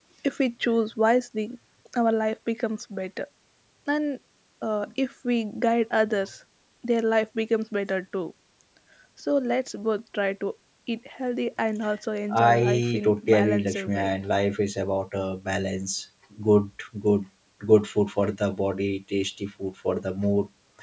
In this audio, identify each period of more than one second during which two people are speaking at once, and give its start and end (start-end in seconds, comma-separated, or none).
12.3-14.1